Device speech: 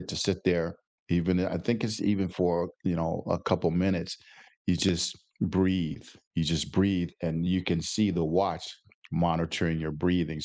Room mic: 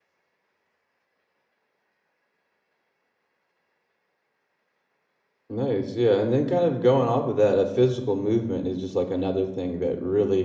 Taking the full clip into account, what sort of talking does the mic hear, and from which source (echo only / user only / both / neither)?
user only